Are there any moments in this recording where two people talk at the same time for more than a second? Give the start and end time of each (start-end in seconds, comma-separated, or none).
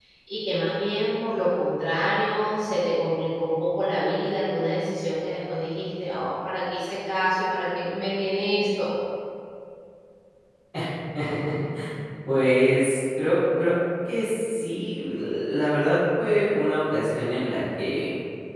none